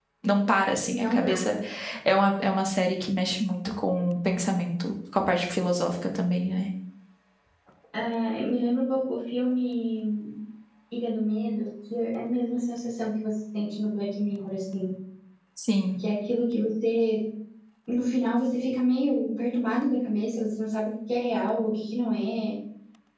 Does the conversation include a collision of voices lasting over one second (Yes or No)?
No